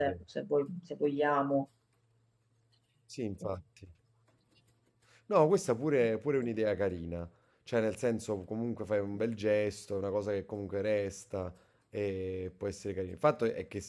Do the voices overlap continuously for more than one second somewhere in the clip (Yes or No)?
No